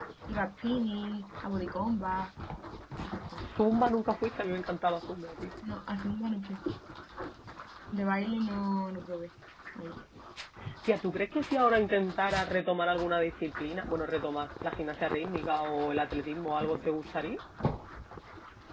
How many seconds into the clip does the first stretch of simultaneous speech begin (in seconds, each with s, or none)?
none